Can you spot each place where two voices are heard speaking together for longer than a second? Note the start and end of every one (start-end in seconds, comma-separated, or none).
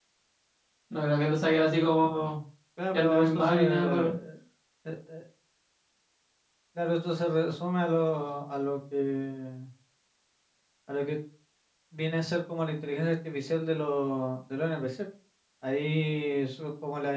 2.9-4.2